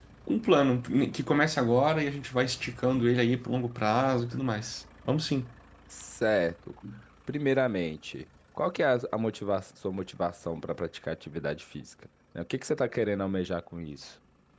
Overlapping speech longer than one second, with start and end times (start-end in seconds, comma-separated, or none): none